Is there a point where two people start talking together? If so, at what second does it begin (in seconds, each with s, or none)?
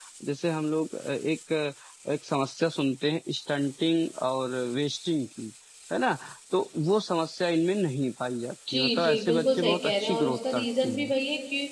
8.7 s